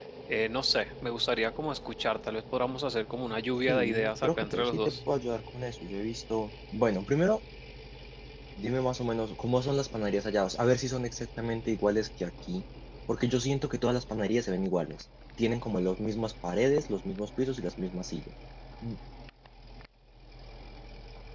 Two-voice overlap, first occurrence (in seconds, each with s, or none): 3.7 s